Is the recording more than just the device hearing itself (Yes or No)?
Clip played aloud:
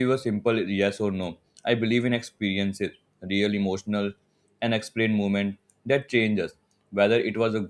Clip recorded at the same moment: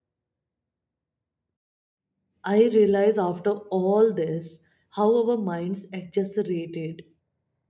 Yes